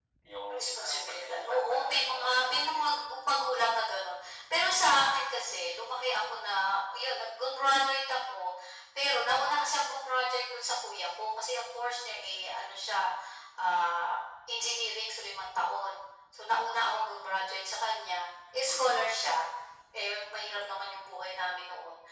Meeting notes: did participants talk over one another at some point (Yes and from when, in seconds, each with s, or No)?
Yes, from 0.5 s